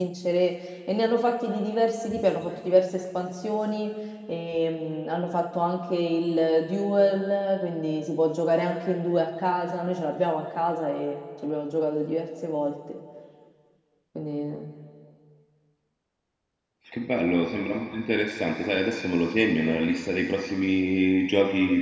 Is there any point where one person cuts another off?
No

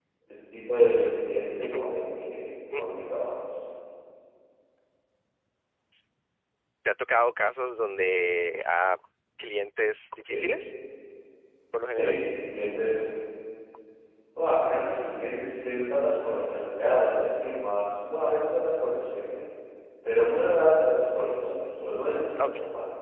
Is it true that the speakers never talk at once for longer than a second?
Yes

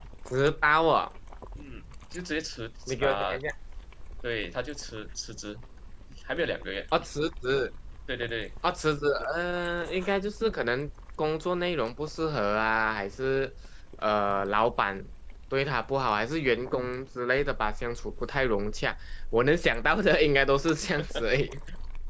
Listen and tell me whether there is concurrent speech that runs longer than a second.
No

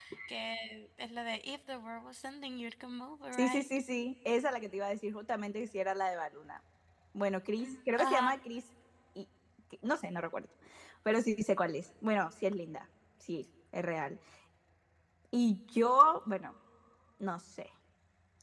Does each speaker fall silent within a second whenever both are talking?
Yes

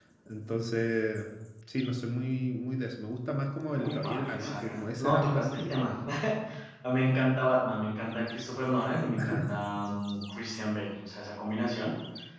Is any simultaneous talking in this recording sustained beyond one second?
Yes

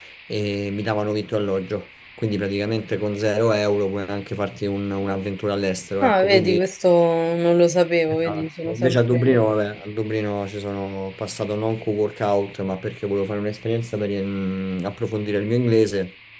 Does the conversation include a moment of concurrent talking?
Yes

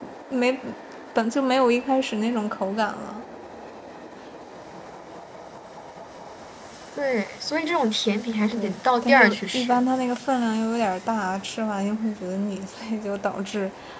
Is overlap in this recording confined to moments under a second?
No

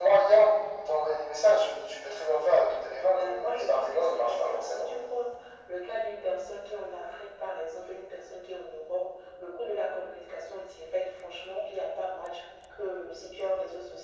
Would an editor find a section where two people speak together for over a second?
Yes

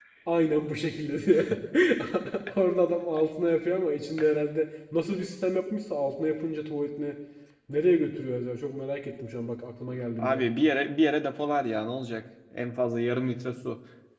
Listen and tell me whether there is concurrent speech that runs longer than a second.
No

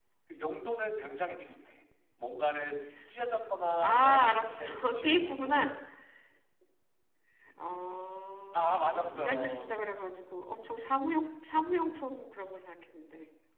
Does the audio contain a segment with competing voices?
Yes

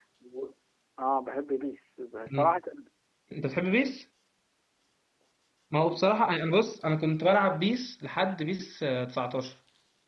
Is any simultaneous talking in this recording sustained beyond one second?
No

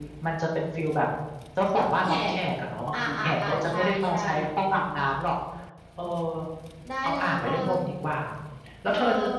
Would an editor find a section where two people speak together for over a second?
Yes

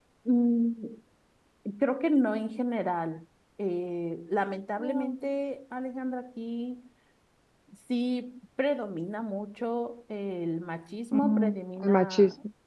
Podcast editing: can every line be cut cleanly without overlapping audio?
No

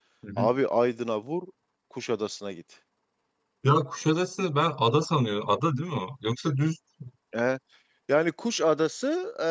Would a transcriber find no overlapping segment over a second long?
Yes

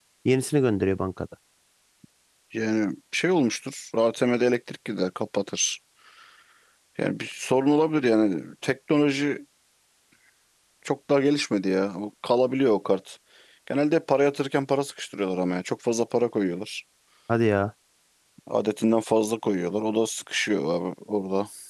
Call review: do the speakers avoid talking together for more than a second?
Yes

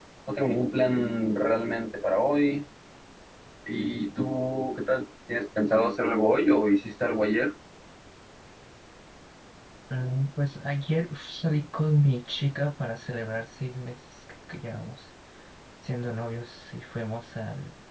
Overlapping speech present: No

